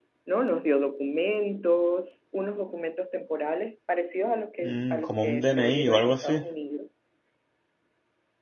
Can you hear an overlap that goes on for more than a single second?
Yes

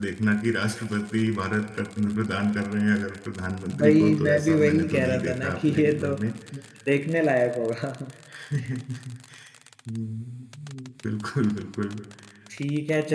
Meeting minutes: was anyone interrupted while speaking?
Yes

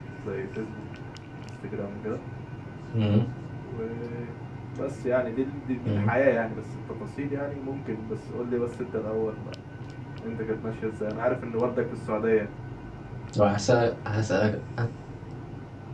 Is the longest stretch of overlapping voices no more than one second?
Yes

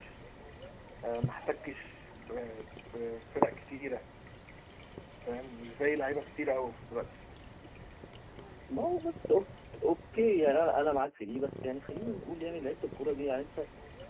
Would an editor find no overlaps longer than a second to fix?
Yes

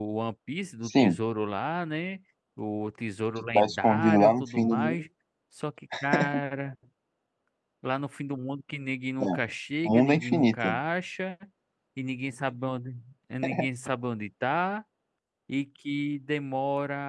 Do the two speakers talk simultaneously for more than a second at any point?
Yes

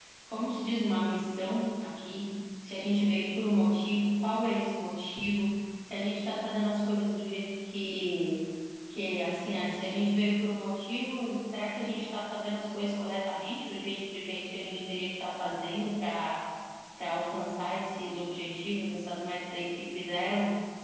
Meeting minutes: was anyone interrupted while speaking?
No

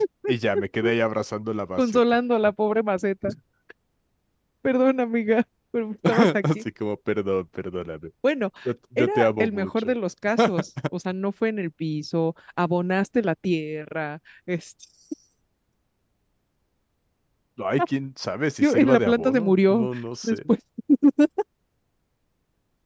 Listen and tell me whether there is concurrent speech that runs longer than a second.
Yes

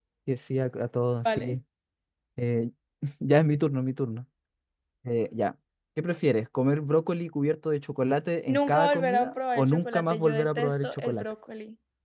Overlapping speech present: Yes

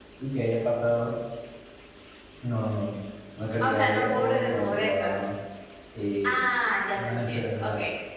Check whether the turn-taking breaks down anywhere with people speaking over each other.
Yes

